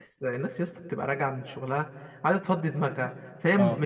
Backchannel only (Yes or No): Yes